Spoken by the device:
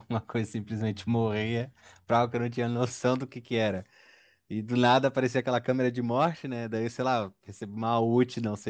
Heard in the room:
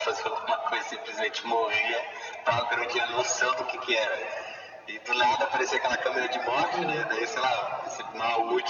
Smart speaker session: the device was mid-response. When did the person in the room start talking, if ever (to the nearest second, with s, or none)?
7 s